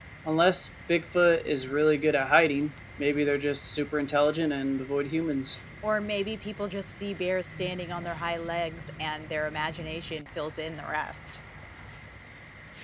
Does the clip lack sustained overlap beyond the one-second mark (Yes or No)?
Yes